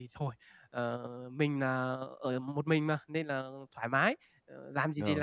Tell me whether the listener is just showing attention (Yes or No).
Yes